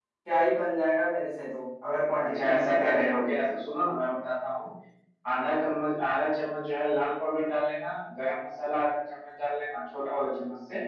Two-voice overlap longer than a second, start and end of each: 2.2-3.6

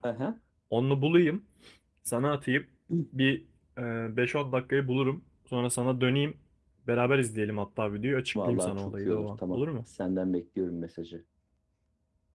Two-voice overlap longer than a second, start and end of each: 8.3-9.6

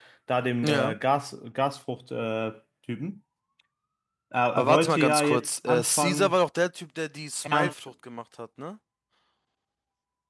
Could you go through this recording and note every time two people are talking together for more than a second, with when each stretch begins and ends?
4.6-6.3

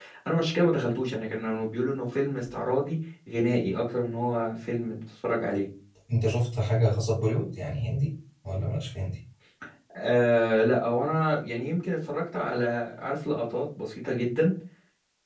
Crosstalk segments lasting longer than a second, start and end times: none

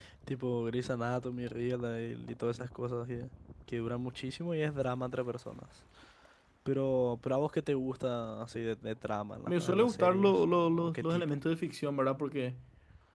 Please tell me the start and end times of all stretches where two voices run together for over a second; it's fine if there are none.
9.5-11.4

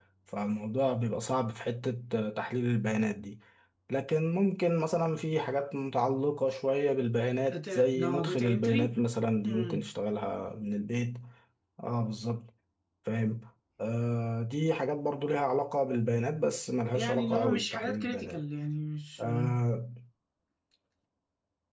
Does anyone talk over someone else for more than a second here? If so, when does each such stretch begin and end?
7.5-8.8, 16.9-18.4

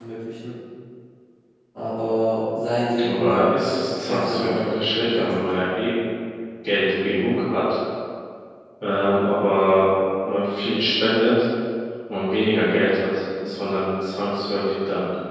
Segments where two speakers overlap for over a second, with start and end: 3.0-5.5

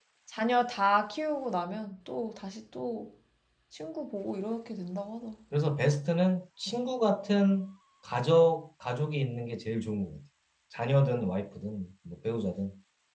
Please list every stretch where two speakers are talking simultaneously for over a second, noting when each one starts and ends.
none

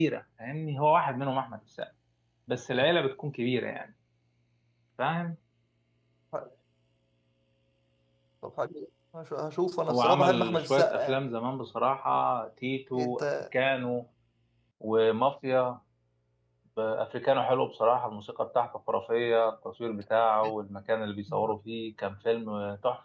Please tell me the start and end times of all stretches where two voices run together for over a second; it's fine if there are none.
9.9-11.2

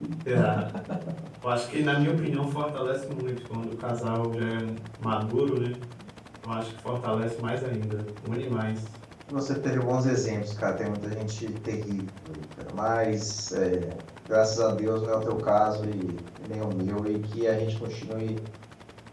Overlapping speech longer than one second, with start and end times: none

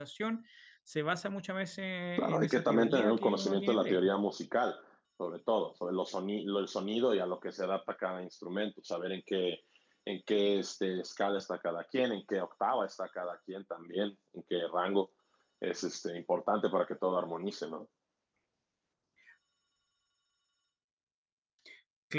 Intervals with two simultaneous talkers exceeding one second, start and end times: 2.2-4.1

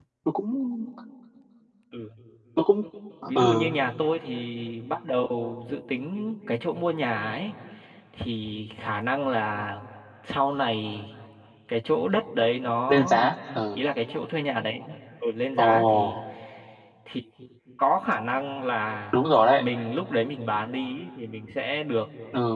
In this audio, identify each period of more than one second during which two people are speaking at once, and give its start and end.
none

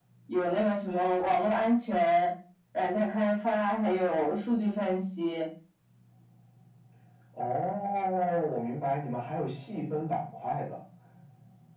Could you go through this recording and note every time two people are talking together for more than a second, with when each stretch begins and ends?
none

